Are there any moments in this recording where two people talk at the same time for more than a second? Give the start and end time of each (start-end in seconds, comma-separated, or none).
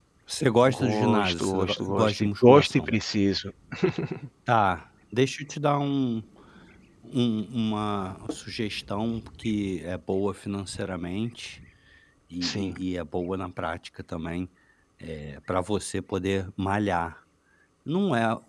0.7-2.9